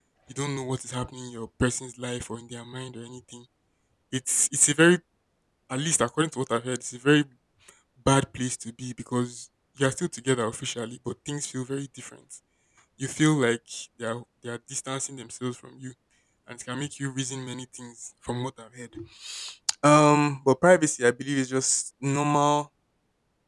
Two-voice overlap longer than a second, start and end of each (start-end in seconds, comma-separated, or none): none